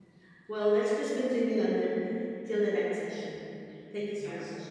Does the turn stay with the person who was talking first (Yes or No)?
No